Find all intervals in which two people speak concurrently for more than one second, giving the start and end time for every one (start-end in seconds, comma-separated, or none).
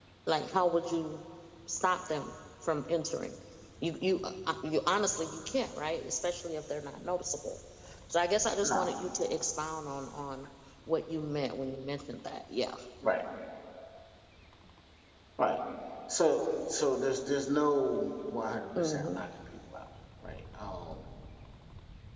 none